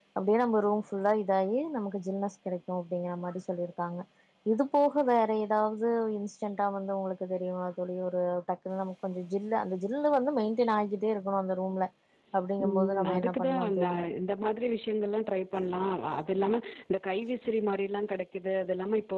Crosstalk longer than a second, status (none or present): present